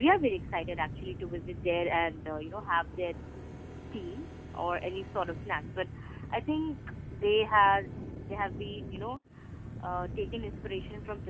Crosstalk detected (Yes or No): No